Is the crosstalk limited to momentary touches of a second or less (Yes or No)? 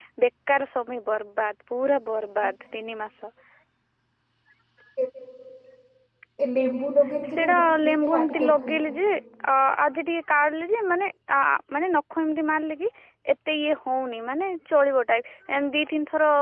No